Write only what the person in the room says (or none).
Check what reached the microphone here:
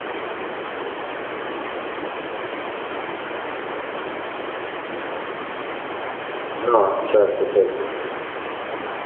No, certo, certo.